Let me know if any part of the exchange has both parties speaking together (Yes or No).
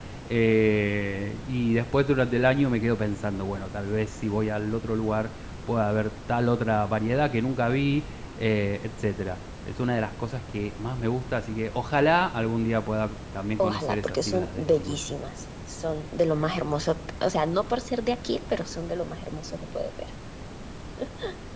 Yes